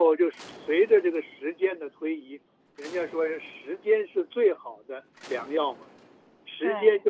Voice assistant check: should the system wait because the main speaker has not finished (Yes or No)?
Yes